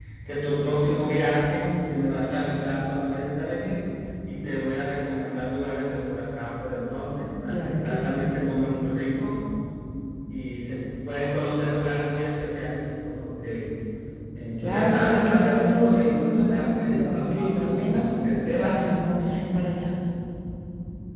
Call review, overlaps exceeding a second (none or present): present